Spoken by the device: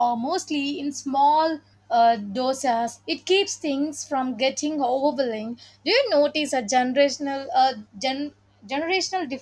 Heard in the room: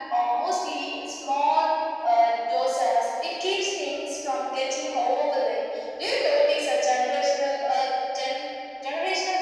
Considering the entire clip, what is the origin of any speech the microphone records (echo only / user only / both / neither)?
echo only